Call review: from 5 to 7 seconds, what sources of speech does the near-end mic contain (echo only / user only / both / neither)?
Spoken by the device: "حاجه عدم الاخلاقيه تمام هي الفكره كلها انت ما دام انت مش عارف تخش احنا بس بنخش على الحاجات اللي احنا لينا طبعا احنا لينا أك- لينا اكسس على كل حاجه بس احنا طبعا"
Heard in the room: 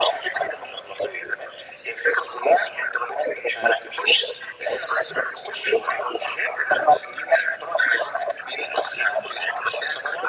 echo only